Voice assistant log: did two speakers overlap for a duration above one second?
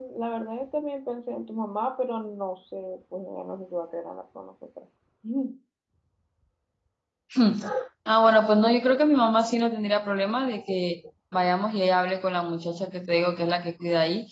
No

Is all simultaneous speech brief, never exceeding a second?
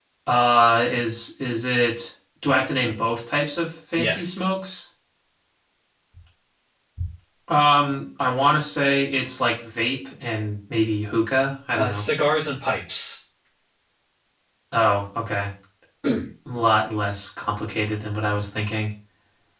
Yes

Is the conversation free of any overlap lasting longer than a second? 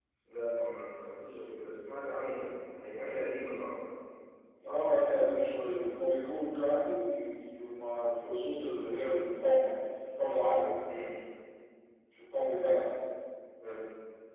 Yes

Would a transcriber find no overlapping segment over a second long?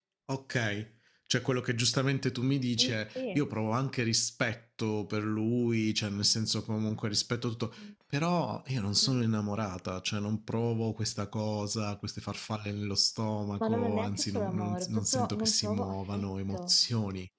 No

